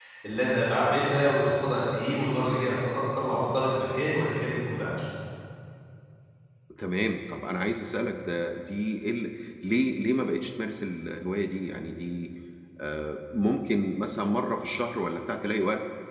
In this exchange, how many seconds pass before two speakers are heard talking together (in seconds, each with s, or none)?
none